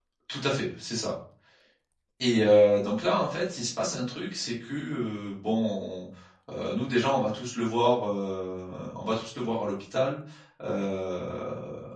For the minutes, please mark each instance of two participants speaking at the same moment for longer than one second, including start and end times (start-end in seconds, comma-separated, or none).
none